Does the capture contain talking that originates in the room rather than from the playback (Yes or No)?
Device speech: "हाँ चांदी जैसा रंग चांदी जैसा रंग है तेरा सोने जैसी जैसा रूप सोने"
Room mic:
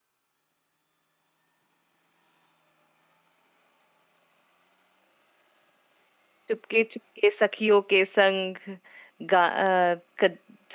Yes